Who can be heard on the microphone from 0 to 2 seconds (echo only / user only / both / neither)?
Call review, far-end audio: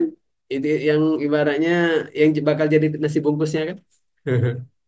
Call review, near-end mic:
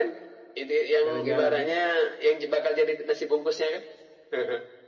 both